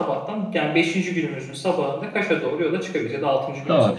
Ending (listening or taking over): taking over